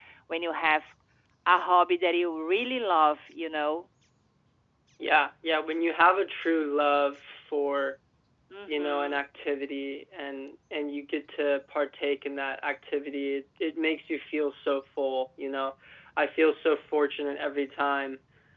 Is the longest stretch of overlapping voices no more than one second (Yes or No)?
Yes